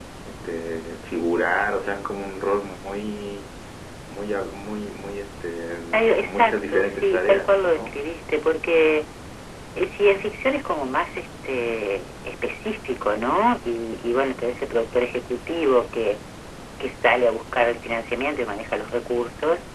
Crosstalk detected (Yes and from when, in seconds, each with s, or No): Yes, from 5.9 s